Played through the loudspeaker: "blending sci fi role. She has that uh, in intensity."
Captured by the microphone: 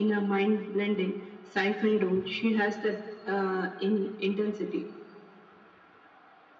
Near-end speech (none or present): none